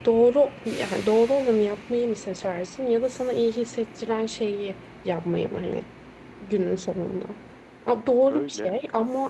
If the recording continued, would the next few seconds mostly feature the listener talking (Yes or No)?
No